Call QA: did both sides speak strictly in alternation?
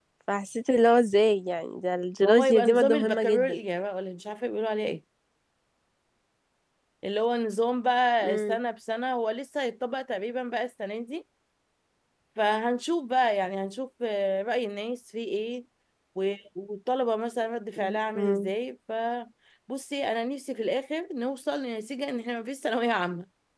No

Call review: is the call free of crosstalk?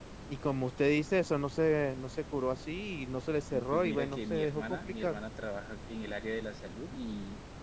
No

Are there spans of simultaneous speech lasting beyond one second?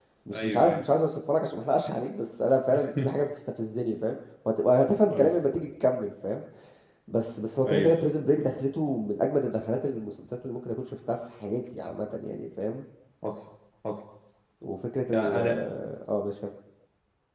No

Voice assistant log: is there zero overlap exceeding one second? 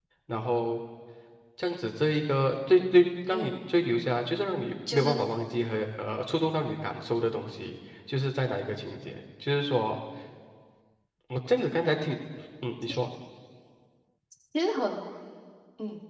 Yes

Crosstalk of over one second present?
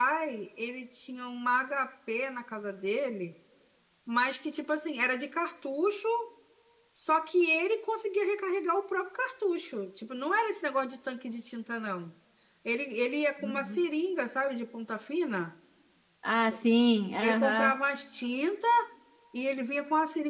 No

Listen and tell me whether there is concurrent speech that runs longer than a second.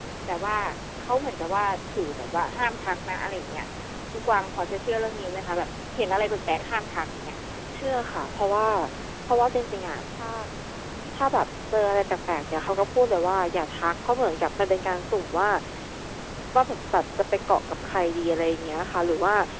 No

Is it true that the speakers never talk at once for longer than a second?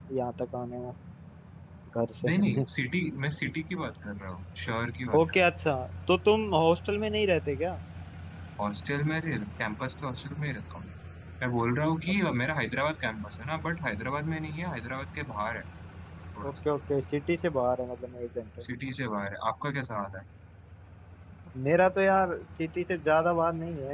Yes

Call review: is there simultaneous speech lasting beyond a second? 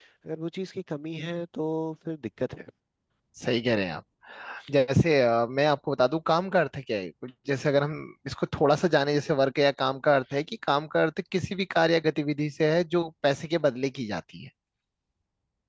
No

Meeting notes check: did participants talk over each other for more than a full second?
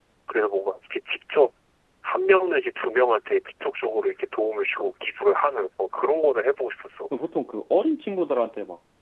No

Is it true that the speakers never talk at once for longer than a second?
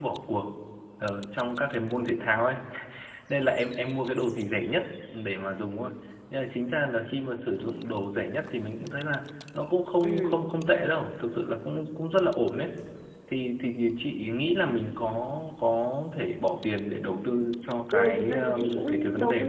No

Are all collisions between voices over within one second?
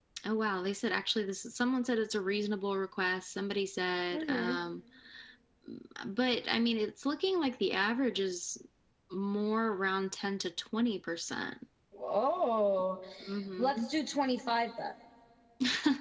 Yes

